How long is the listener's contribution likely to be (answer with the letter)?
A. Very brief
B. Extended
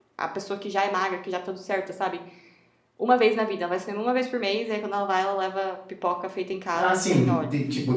B